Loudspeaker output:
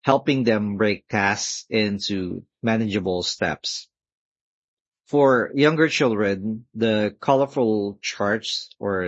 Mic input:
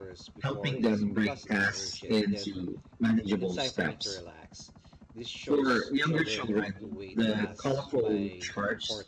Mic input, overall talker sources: both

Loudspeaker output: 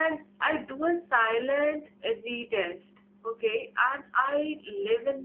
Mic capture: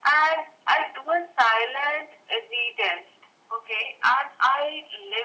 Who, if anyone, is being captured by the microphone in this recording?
echo only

